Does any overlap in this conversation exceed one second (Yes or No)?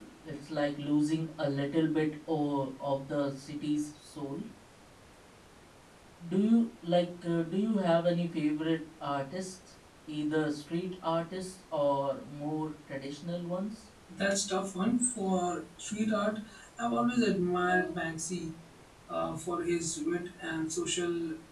No